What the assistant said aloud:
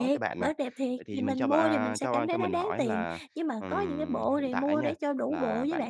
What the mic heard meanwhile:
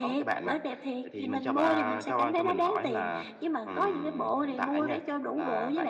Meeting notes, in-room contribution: none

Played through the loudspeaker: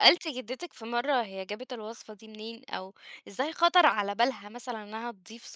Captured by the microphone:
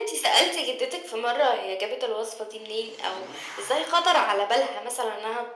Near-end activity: none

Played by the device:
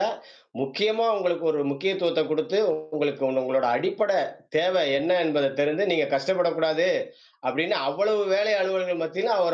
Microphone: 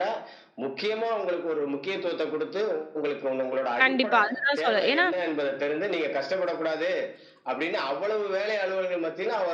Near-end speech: present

